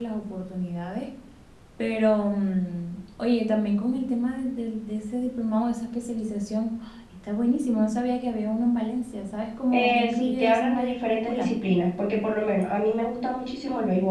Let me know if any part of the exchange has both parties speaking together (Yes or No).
Yes